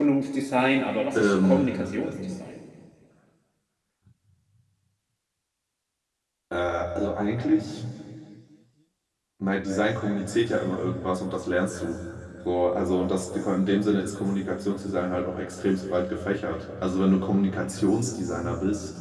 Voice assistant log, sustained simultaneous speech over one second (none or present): none